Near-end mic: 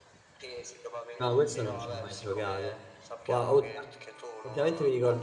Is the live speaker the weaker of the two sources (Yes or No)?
No